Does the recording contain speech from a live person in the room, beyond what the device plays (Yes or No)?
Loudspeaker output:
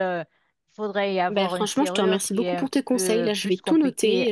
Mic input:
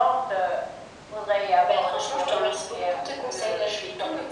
No